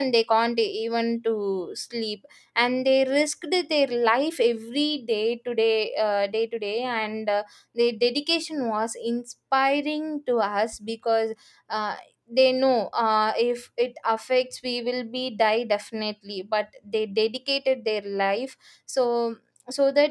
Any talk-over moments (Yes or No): No